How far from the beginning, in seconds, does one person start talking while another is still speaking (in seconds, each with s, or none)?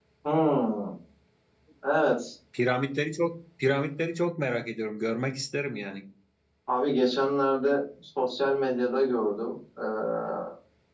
none